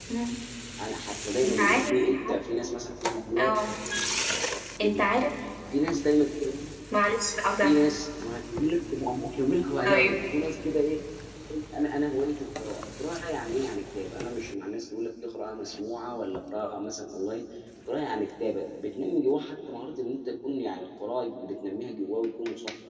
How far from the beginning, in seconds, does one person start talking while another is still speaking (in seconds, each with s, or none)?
1.4 s